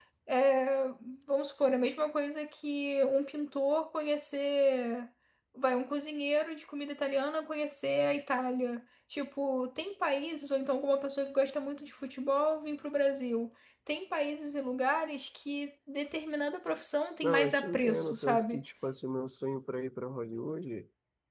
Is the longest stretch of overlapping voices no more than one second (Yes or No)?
No